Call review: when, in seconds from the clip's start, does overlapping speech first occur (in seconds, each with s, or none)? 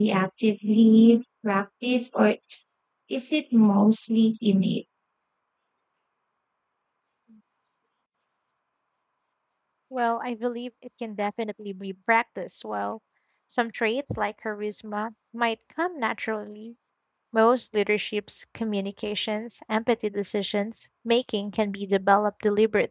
none